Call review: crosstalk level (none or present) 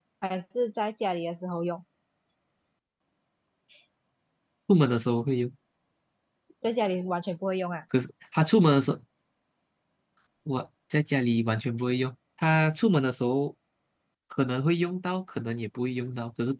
none